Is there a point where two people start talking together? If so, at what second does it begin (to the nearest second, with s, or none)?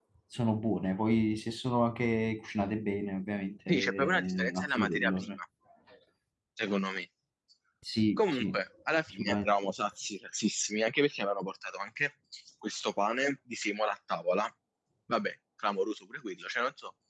4 s